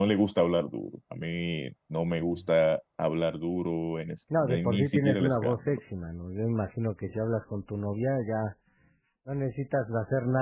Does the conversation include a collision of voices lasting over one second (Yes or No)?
Yes